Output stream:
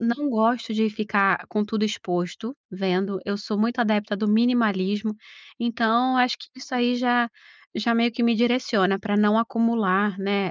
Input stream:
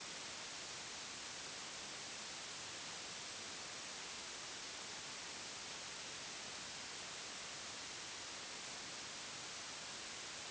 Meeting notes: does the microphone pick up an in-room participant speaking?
No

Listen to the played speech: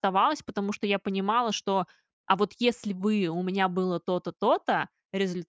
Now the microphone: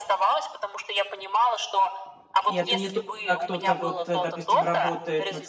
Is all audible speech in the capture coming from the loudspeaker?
No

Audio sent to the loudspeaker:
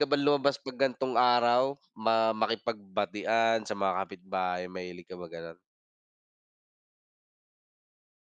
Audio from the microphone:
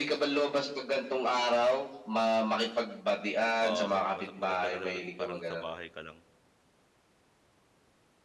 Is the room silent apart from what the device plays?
No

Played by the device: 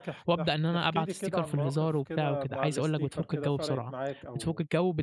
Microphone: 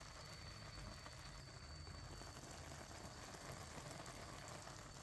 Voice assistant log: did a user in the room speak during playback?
No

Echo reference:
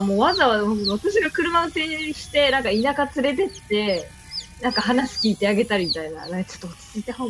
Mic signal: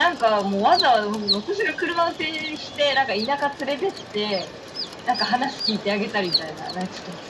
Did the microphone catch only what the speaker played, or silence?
Yes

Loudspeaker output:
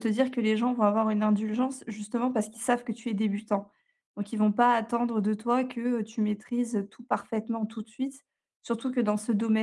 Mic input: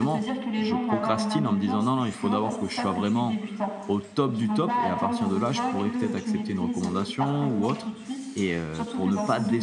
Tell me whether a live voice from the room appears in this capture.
Yes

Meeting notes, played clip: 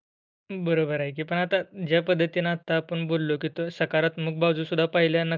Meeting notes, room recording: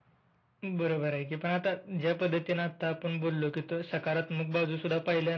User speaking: No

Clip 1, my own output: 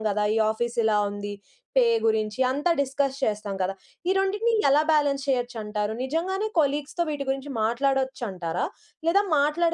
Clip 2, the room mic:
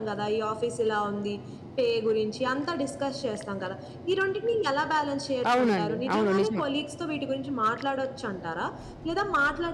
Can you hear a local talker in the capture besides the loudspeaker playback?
Yes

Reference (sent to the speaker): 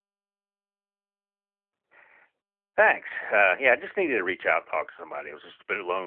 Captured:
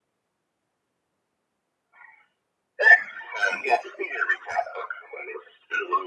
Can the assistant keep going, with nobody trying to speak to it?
Yes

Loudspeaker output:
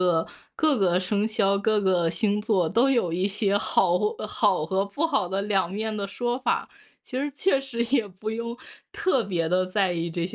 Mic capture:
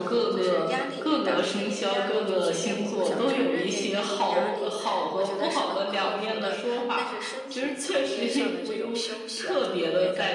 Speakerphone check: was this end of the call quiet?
No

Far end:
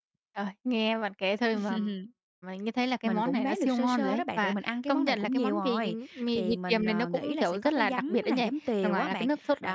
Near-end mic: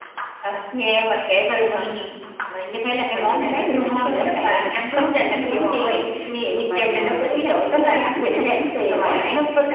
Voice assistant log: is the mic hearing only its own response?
Yes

